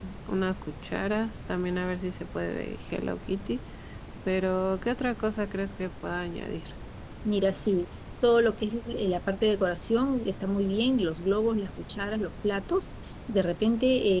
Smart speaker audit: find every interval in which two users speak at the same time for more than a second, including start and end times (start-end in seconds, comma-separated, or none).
none